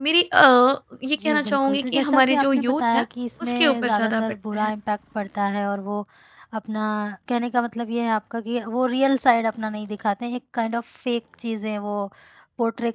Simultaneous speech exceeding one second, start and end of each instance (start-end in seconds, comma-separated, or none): 1.2-3.0, 3.4-4.7